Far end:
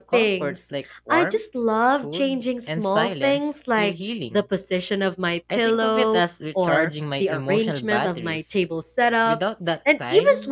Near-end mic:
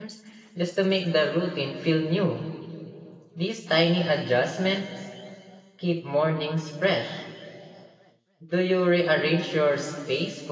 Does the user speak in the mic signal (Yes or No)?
Yes